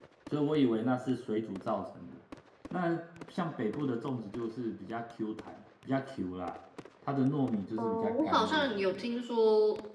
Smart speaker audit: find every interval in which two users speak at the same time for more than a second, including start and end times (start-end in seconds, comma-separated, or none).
7.8-9.0